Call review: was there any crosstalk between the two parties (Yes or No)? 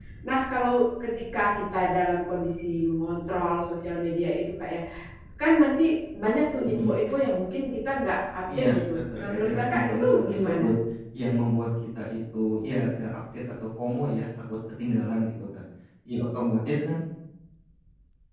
Yes